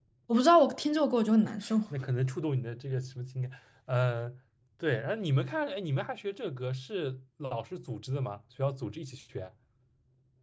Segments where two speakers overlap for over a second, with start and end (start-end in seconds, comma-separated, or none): none